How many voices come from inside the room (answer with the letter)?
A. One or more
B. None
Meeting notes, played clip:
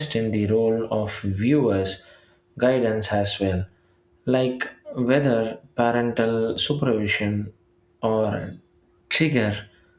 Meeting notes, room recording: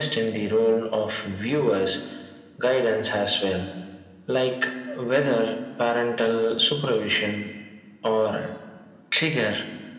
B